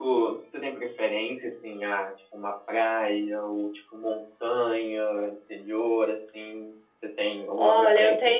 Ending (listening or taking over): taking over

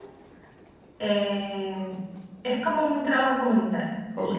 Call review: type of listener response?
taking over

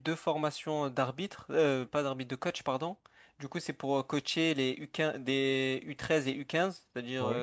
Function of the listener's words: listening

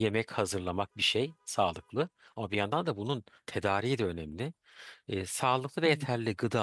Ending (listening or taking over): listening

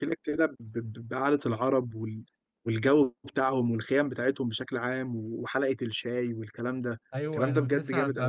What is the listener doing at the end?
taking over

